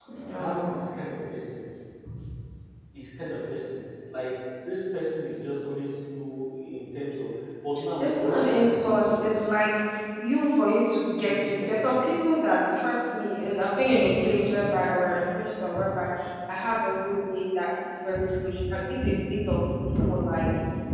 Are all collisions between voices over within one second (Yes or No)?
No